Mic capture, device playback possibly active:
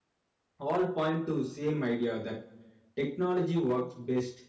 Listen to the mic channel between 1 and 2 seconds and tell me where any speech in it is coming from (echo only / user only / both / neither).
user only